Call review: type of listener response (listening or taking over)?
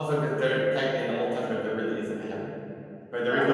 taking over